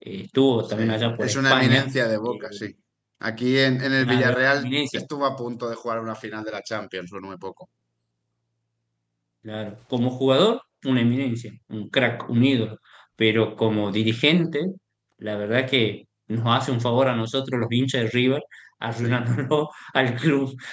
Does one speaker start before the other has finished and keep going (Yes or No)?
Yes